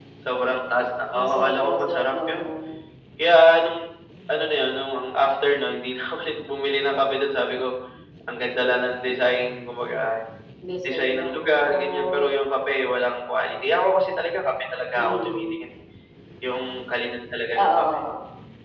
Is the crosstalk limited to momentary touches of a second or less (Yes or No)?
No